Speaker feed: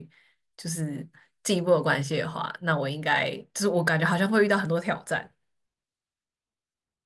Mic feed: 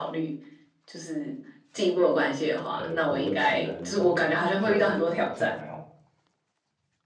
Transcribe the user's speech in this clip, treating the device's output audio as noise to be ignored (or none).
呃国籍还是什么，就我好像还好，